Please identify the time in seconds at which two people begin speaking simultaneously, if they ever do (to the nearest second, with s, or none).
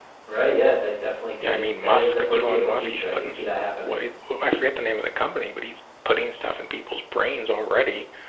1 s